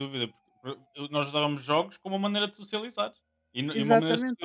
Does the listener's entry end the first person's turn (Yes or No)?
No